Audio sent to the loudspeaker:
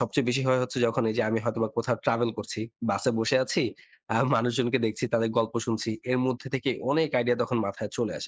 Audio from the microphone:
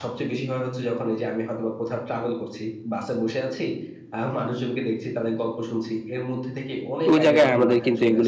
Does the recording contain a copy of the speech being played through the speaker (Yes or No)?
Yes